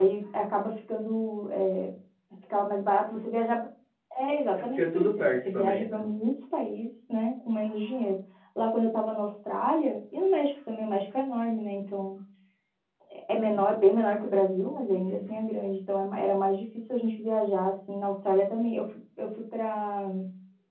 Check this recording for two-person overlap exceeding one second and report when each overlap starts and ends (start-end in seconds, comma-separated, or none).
4.8-6.1